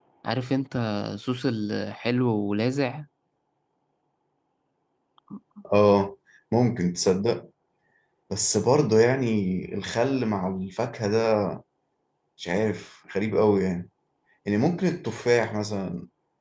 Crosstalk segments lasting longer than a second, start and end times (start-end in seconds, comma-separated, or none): none